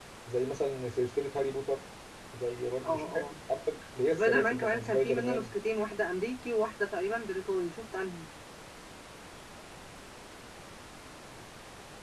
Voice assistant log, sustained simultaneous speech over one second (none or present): present